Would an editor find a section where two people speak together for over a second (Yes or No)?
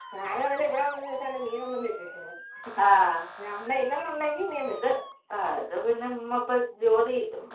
No